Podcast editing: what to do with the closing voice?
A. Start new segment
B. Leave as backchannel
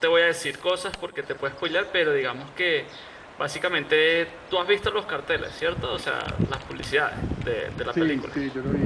A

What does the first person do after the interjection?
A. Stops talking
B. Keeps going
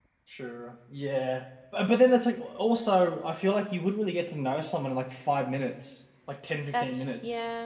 B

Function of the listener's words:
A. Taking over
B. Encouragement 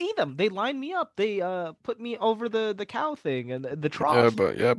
A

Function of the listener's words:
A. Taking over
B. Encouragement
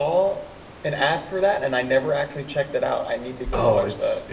A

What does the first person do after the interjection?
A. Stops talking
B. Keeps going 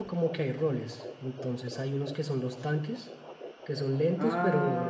B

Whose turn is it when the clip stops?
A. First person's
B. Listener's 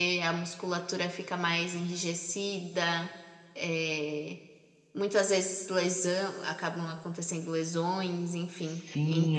B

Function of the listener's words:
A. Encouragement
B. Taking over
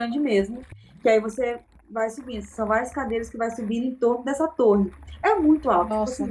A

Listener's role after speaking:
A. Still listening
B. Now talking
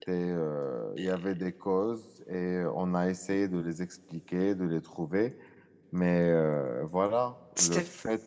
A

